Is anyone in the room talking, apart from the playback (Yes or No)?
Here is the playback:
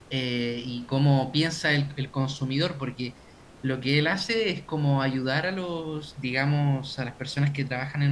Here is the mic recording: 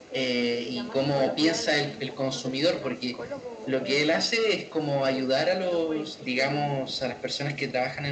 Yes